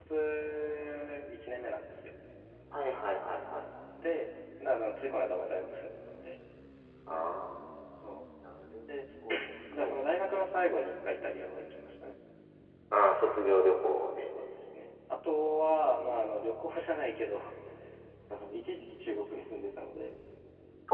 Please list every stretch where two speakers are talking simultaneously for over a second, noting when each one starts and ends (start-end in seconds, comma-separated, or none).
none